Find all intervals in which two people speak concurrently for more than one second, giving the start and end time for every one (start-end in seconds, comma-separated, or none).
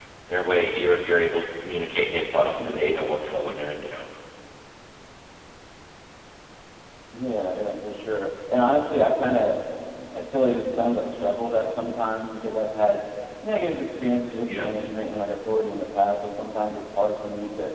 none